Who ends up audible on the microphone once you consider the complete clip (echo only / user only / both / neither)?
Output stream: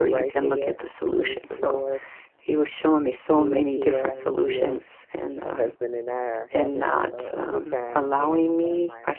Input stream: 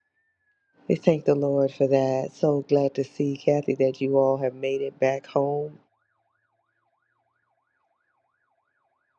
user only